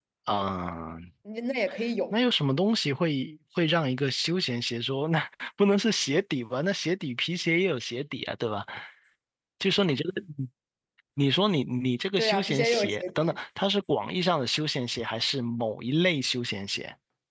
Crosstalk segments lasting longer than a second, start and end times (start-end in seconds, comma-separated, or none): 12.2-13.4